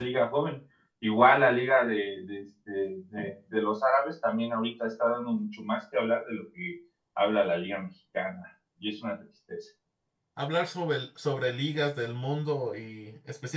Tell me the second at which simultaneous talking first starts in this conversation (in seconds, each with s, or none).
none